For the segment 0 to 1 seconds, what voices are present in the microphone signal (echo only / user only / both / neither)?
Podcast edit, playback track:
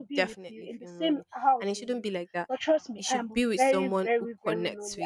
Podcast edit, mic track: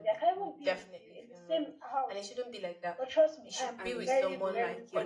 echo only